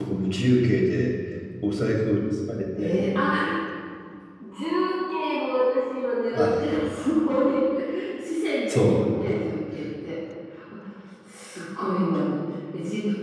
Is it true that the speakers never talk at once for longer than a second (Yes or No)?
Yes